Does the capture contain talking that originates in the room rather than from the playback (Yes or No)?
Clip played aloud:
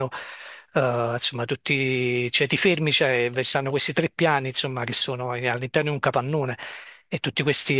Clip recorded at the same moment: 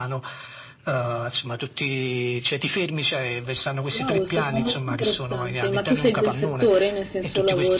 Yes